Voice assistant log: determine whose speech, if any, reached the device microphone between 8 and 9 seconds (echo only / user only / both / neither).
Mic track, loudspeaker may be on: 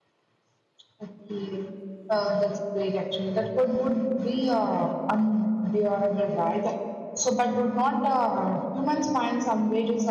user only